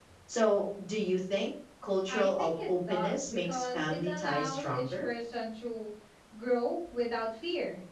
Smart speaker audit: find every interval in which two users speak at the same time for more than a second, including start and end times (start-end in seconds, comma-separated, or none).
2.1-5.1